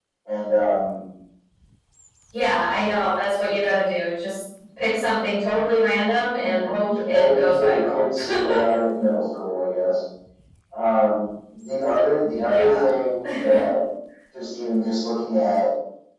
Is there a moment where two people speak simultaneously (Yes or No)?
Yes